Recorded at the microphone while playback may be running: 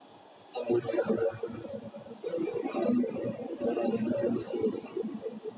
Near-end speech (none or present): none